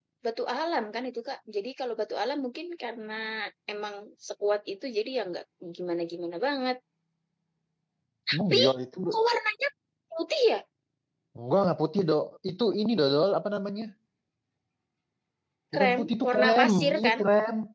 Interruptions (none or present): present